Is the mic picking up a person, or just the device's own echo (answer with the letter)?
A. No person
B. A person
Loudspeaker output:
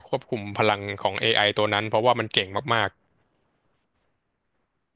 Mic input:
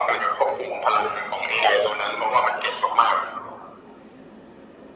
A